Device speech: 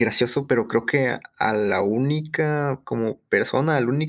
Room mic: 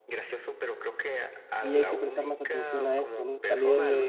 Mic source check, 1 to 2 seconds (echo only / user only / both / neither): both